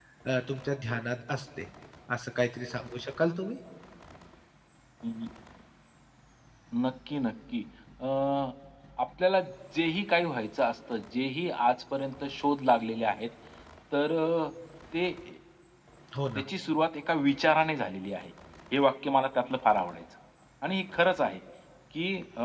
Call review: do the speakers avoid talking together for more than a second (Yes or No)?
Yes